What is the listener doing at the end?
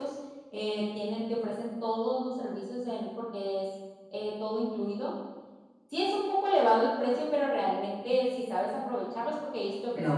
listening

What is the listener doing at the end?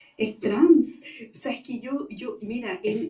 listening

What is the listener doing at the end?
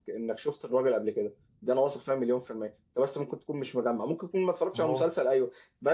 listening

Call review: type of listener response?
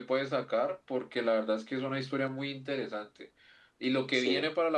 listening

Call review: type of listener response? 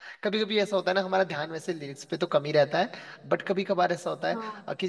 listening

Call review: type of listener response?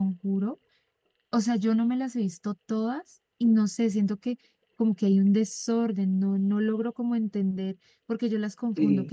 listening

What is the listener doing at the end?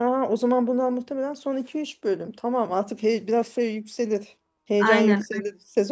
listening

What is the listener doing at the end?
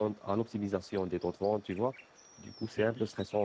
listening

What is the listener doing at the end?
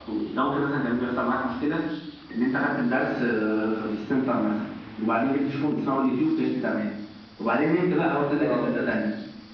listening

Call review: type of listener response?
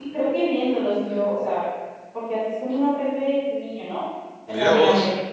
taking over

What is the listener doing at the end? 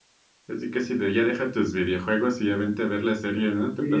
taking over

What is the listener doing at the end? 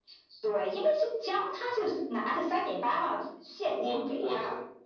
taking over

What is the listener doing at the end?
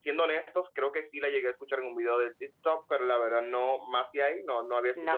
taking over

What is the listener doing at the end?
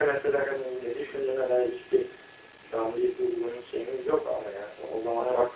listening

